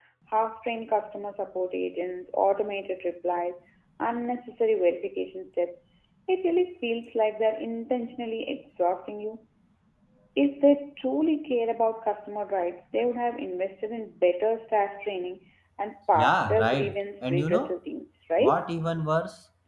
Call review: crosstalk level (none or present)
present